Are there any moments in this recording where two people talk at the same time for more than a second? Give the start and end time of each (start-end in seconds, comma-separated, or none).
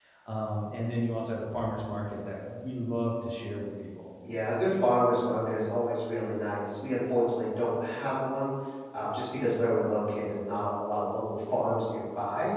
none